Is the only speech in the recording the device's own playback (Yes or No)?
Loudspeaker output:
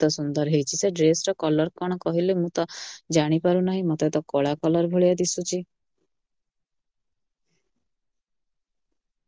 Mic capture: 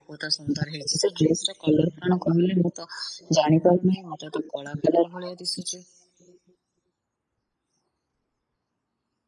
Yes